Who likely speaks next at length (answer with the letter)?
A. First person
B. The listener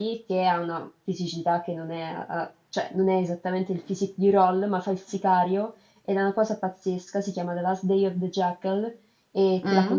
B